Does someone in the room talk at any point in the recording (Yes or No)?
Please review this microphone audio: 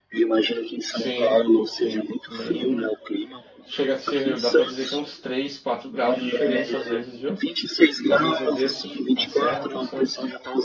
Yes